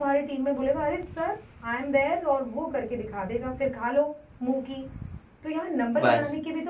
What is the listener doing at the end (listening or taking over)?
listening